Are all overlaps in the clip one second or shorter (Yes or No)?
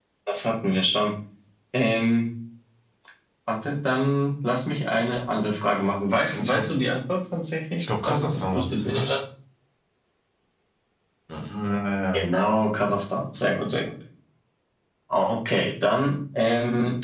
No